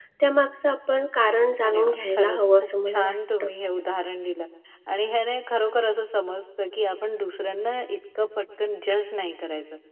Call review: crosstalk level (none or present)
present